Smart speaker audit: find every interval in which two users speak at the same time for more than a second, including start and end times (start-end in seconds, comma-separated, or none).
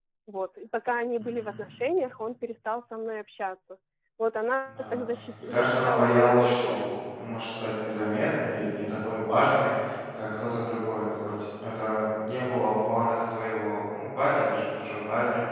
5.4-6.9